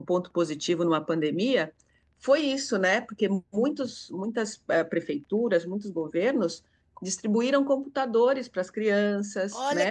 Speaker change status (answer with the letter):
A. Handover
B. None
A